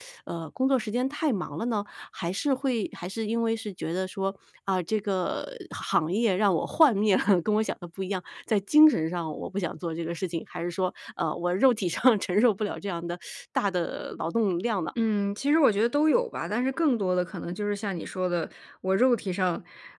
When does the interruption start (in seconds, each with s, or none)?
none